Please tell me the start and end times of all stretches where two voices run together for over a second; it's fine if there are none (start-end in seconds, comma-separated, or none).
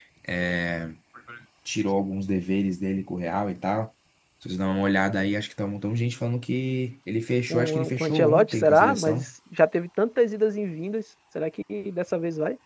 7.5-9.3